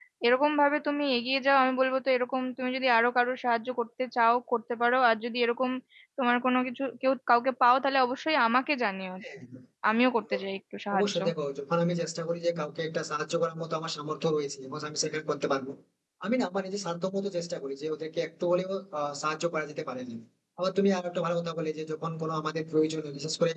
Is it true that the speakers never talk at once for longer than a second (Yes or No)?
Yes